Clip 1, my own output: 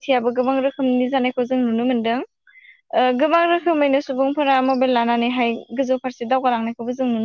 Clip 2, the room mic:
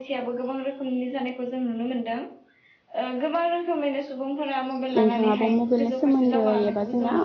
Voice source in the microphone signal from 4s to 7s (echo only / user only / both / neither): both